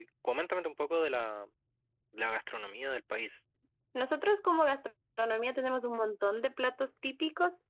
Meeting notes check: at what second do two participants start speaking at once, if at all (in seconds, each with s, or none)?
none